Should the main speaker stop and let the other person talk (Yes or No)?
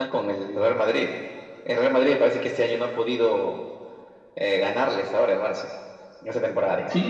Yes